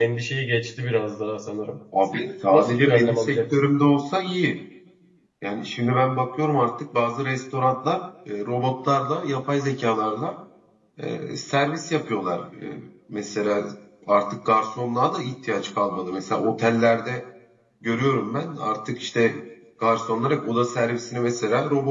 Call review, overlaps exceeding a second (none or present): present